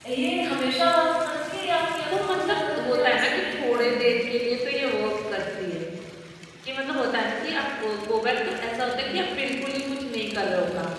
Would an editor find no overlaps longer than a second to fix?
No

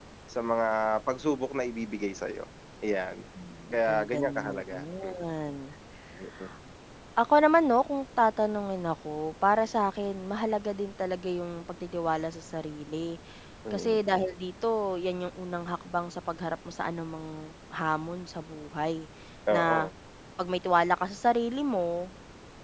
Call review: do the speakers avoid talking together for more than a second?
No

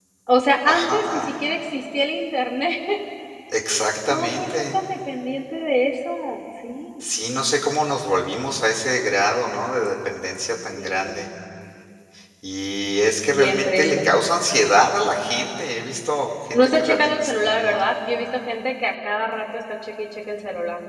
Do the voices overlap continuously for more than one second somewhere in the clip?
Yes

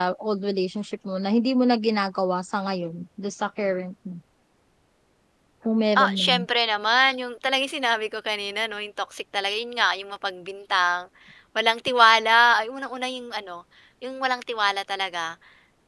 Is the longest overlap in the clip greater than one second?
No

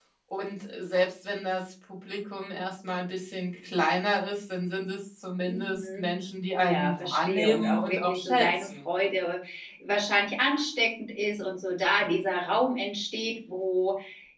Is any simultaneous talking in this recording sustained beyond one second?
Yes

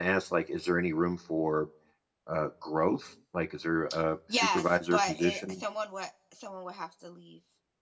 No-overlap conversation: No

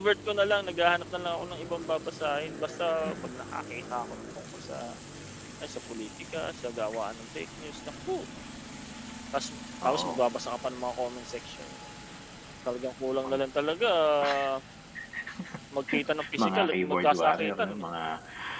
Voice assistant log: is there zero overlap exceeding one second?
No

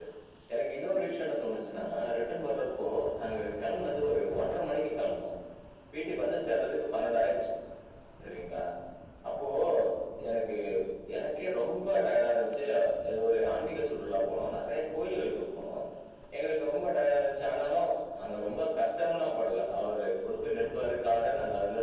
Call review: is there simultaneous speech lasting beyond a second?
No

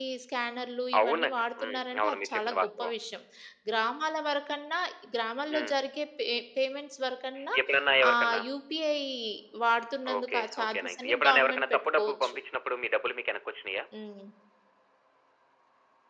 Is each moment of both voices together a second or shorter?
No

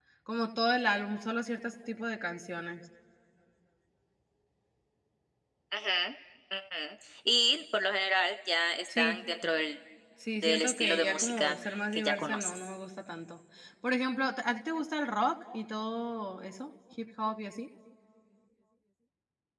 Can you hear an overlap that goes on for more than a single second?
Yes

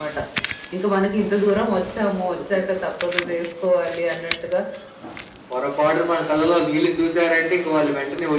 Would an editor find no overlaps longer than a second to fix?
Yes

